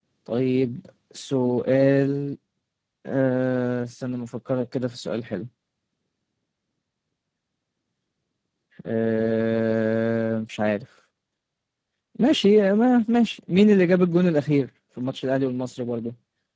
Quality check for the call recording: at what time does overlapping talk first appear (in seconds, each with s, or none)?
none